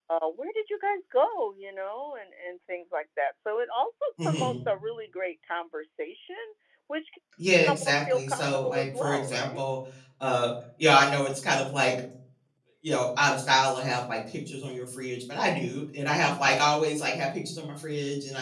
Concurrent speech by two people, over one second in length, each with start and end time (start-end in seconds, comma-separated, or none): 7.7-9.6